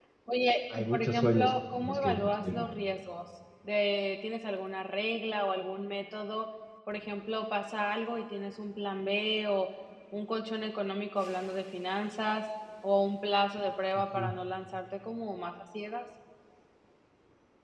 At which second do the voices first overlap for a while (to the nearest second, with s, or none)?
1 s